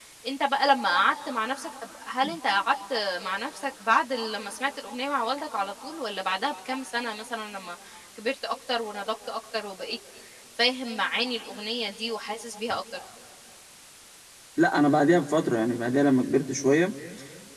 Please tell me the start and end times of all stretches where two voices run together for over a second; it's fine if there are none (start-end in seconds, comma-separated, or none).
none